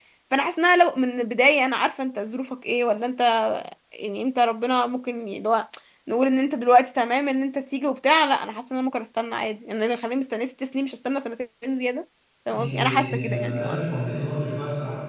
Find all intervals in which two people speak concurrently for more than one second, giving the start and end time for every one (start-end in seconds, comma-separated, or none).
12.5-13.8